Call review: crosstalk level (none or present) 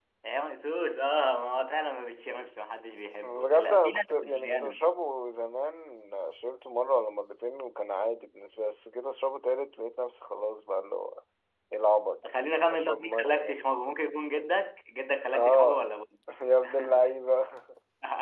present